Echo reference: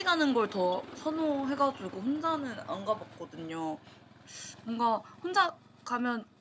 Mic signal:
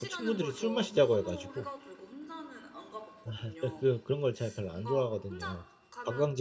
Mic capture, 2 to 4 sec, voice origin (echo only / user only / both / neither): both